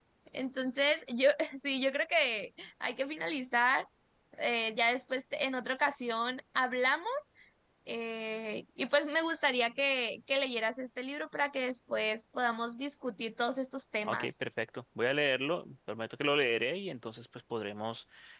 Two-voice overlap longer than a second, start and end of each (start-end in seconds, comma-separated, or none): none